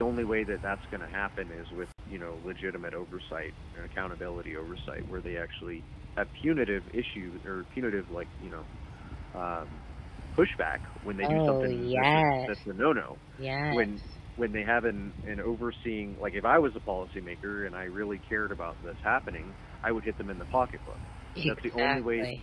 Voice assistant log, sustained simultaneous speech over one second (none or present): present